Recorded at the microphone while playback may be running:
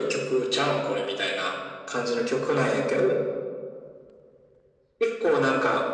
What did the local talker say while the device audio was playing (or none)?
none